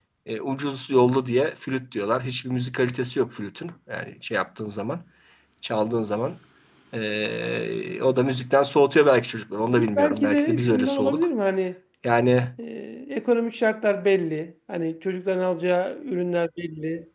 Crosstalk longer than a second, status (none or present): present